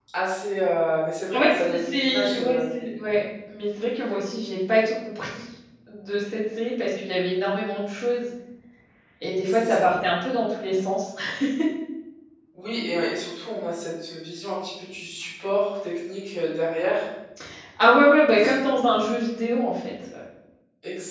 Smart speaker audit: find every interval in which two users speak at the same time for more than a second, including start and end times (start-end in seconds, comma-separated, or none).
1.3-2.6